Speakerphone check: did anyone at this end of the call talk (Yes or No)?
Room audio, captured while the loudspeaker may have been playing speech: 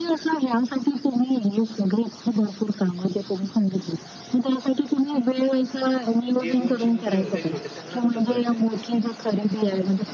Yes